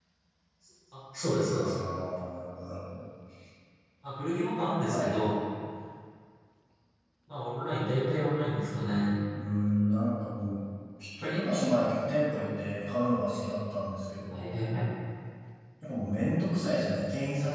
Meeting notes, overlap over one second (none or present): none